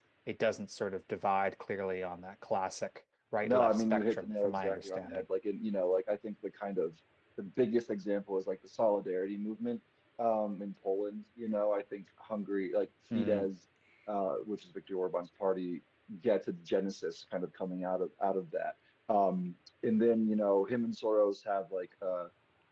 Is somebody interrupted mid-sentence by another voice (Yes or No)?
Yes